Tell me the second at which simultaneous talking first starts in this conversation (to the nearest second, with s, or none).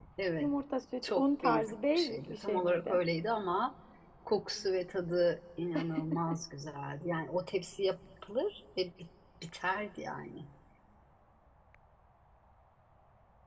1 s